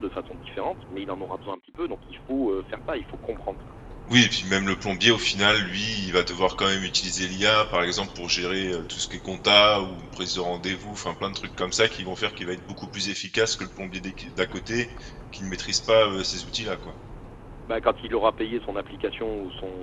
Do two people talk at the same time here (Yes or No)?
No